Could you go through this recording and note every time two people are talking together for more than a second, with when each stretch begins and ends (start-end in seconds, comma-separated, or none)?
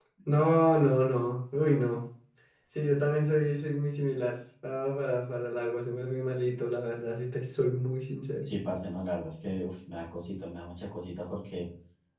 none